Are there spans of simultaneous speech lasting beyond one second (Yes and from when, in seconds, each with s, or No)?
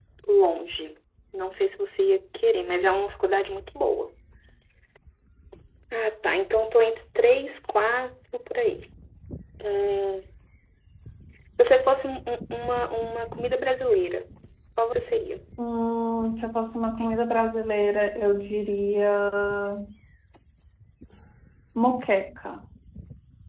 No